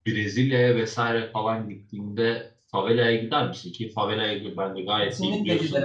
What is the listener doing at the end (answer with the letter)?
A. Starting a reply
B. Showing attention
A